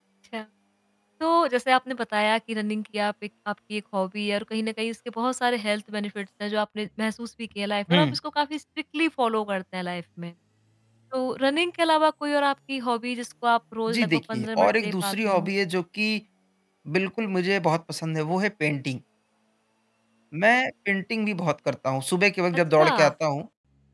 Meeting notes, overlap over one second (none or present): present